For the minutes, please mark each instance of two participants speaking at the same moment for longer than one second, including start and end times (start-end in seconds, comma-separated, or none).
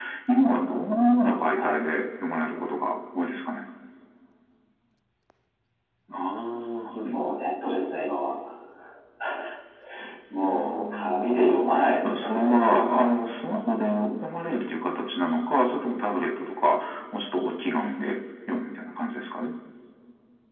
10.4-13.2